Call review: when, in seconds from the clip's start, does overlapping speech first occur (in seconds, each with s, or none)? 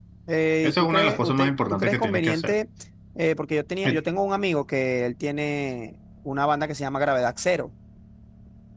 0.6 s